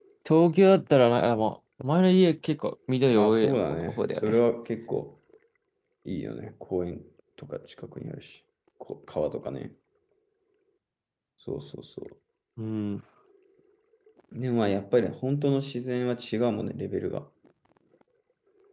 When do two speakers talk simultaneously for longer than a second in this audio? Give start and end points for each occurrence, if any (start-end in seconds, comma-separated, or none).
3.1-4.4